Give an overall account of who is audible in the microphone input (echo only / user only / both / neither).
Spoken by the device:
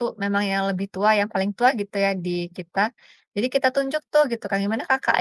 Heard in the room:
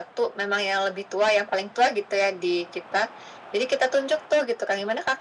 echo only